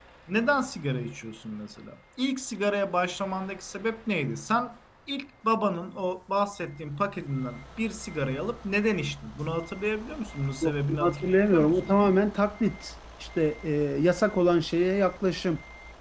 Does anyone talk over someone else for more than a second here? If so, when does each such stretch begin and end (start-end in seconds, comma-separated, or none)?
10.6-11.9